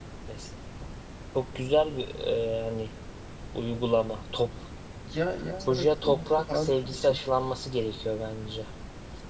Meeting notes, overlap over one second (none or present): present